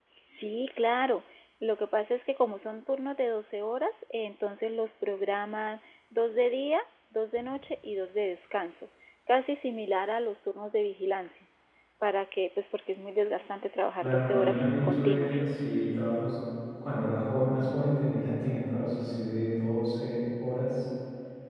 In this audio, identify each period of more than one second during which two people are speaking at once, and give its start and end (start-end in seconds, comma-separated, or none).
14.0-15.4